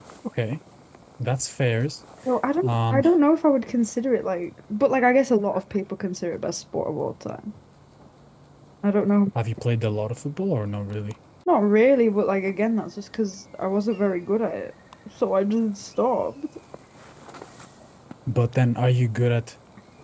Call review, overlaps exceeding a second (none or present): none